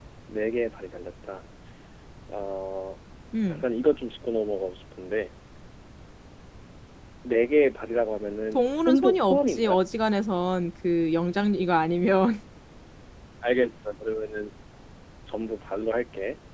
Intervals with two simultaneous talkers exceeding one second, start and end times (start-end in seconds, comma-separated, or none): 8.5-9.8